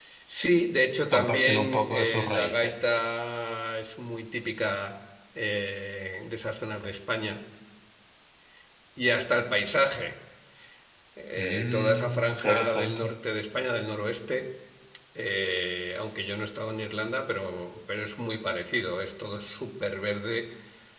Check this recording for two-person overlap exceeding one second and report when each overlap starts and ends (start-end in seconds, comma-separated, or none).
1.1-2.7, 11.4-13.1